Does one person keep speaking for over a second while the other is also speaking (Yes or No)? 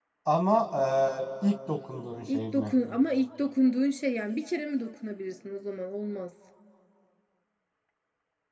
No